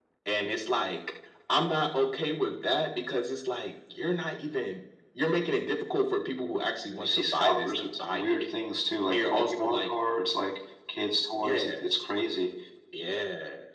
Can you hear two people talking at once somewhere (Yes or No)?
Yes